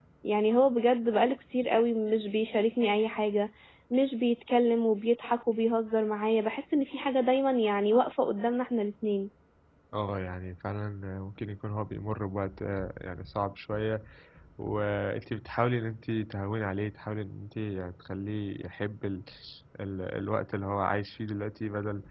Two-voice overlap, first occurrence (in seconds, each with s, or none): none